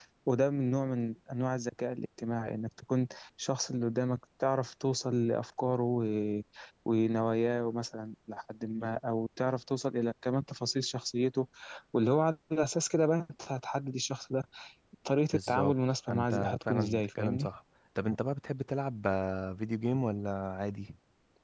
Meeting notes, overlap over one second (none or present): present